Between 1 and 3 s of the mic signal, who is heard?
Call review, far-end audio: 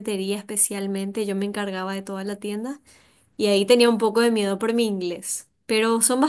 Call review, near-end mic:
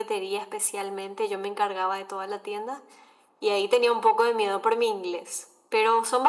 echo only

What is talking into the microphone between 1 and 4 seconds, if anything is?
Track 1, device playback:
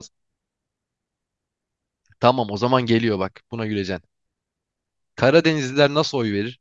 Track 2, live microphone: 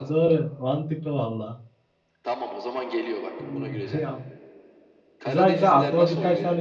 both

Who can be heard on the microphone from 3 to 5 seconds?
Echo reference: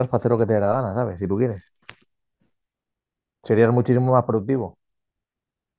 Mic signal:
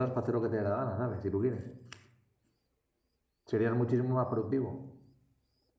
echo only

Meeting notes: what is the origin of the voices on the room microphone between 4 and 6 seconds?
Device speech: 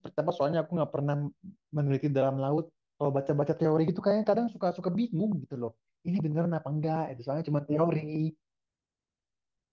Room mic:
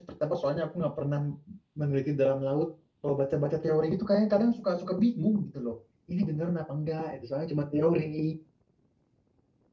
echo only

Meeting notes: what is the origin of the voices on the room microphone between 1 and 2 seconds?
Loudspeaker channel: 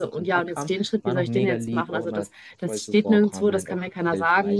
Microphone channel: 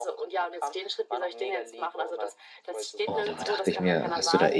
echo only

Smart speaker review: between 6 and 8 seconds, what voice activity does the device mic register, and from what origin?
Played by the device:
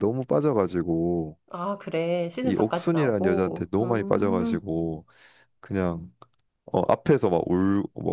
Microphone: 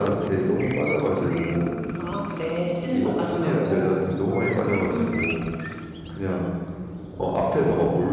echo only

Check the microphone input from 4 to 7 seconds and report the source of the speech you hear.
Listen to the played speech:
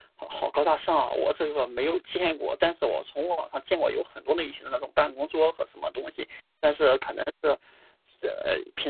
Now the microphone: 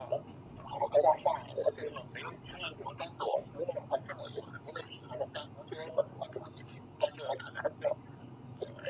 echo only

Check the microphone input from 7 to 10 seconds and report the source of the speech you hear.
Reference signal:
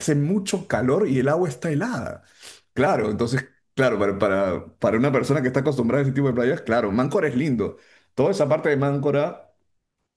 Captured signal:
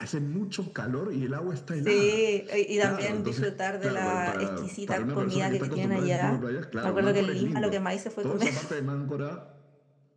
both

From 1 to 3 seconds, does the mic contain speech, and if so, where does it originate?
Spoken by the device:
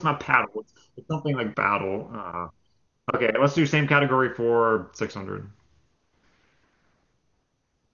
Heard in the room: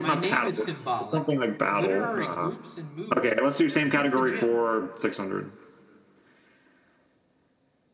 both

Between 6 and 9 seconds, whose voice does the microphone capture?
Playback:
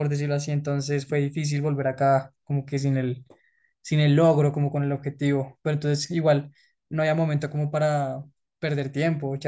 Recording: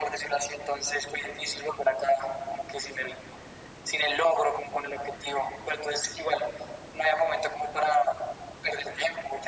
echo only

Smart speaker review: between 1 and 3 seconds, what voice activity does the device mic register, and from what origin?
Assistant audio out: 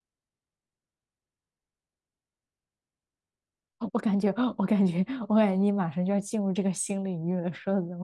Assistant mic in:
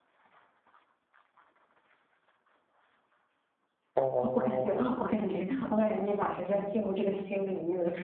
neither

